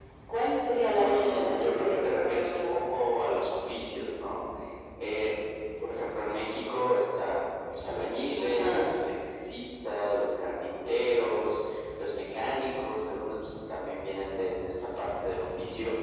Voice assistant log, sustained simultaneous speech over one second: present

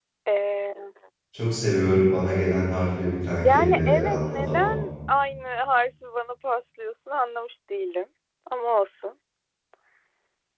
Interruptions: present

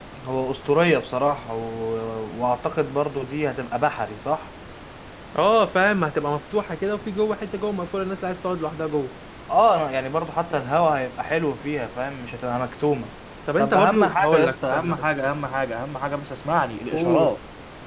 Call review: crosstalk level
present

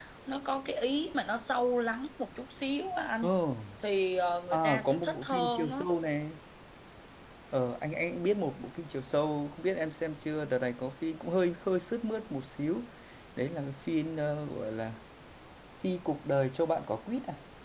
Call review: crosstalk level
present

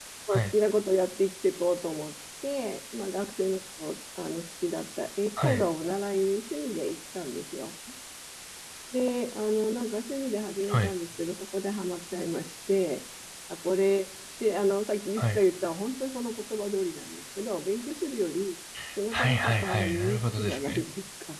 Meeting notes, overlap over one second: present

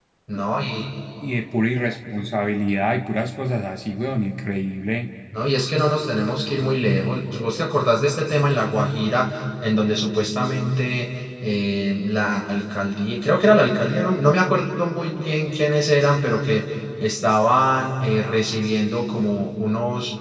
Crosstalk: none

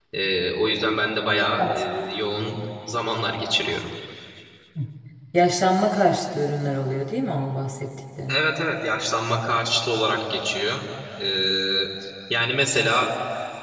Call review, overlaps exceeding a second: none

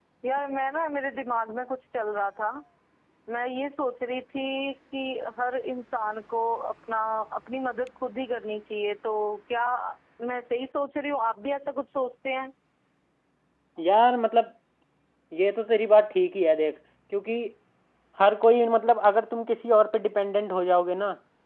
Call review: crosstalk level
none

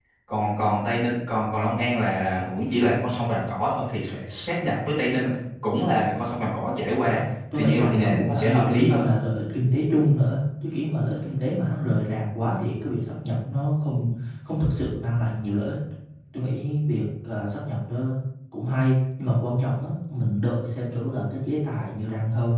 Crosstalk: present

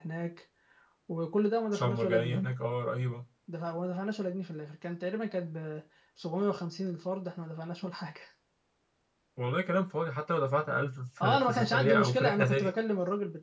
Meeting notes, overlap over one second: present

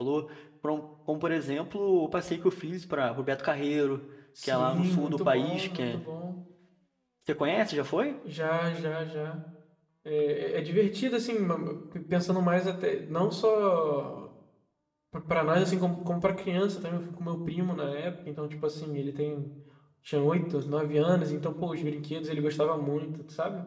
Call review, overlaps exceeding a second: present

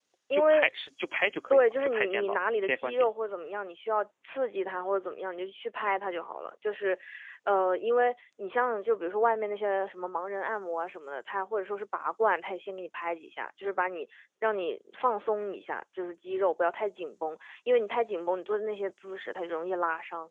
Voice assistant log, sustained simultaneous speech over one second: present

